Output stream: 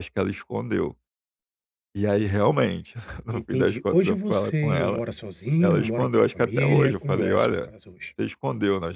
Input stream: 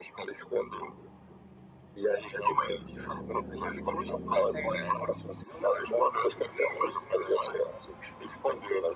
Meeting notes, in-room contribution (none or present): none